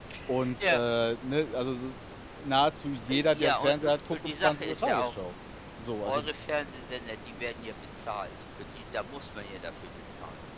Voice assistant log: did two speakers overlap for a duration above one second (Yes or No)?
Yes